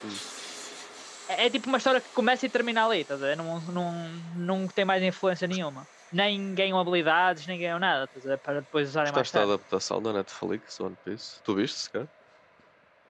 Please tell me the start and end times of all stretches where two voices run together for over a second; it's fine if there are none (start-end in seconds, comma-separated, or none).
none